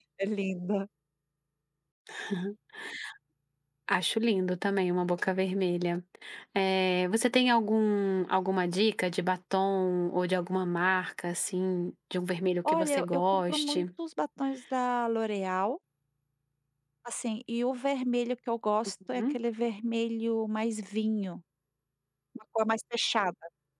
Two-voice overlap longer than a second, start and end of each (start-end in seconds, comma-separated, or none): 12.7-13.8